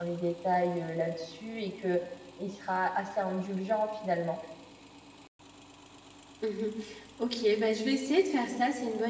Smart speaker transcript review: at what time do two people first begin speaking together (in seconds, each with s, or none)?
none